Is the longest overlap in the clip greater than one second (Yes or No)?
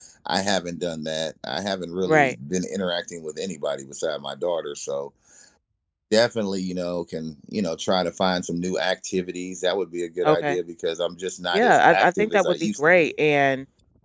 Yes